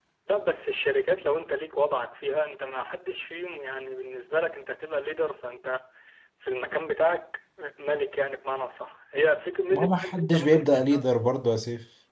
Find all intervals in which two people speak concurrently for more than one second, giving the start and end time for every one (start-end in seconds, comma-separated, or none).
9.7-11.1